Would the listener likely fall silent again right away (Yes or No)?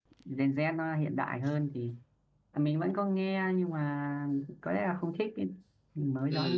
No